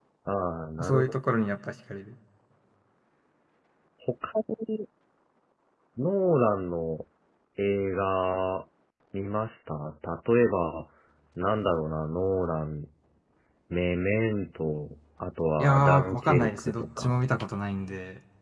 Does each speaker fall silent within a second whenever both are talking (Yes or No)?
No